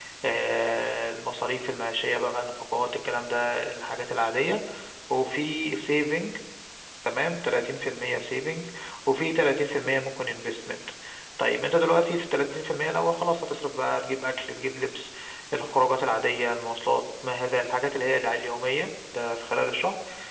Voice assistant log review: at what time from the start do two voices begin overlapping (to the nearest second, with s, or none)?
none